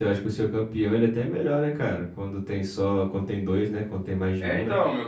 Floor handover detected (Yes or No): Yes